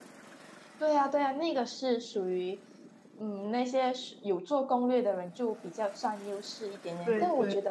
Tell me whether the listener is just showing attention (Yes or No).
Yes